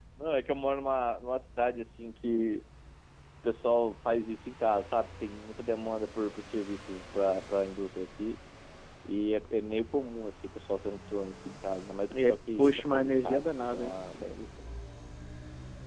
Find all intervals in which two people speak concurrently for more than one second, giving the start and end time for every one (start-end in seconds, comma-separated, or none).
12.1-14.0